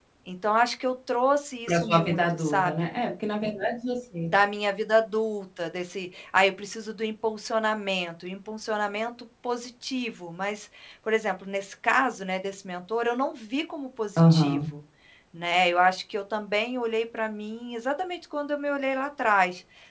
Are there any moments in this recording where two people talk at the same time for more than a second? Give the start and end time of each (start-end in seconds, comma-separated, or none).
1.7-2.9